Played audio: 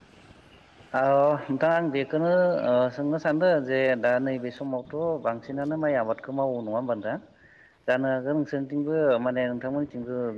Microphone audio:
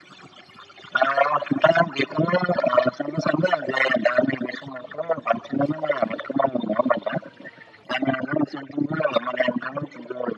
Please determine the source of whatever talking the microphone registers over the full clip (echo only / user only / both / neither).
echo only